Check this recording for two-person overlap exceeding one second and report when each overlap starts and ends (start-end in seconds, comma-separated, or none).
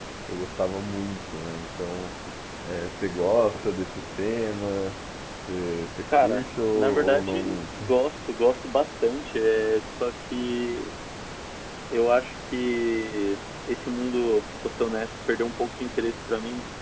6.2-7.8